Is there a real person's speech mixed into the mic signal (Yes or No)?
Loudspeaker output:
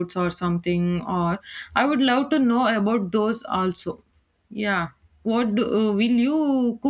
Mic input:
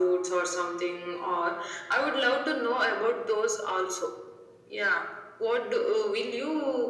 No